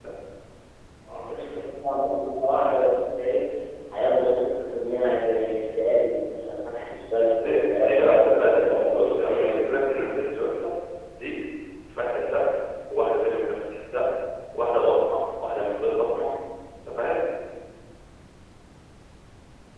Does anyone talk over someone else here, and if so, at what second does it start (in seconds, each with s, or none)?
7.4 s